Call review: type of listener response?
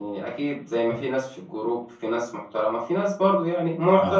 listening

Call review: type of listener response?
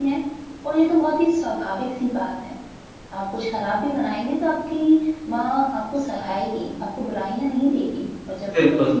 listening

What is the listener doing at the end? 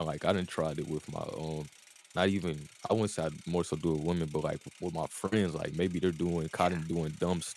listening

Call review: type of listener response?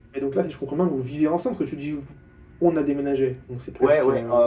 taking over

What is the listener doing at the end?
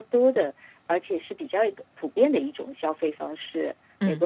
listening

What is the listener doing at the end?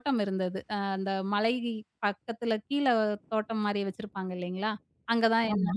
listening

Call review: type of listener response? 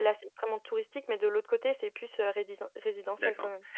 taking over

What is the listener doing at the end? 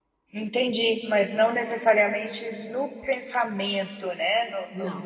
taking over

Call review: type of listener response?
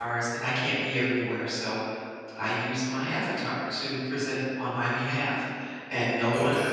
taking over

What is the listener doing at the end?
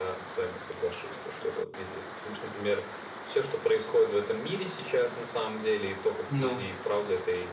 listening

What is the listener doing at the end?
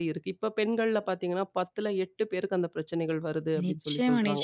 taking over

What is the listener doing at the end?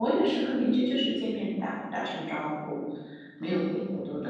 listening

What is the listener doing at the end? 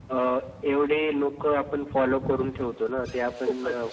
listening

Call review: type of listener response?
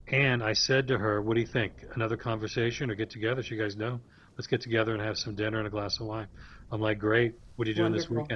listening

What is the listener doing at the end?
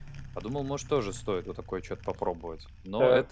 taking over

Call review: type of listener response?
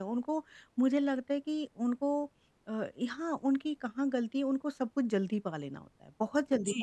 taking over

